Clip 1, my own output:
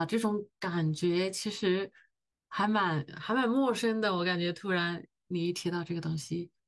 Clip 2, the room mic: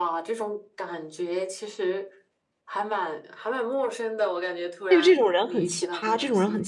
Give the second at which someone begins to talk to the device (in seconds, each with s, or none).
4.9 s